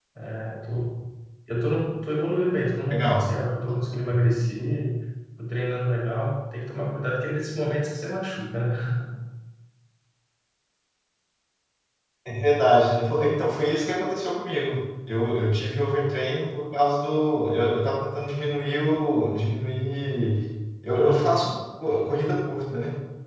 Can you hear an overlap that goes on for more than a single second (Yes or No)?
No